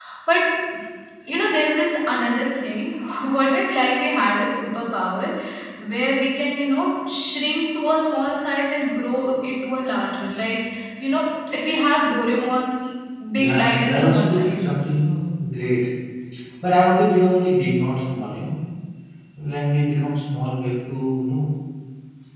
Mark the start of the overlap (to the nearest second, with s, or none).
13 s